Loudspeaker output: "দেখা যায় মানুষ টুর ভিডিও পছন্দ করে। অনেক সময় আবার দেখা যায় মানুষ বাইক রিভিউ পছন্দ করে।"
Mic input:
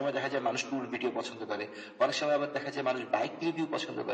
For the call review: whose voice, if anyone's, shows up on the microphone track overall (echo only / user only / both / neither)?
both